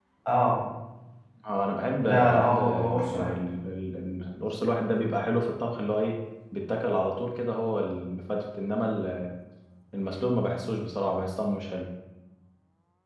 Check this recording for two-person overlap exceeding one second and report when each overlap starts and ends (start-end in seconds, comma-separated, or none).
2.0-3.3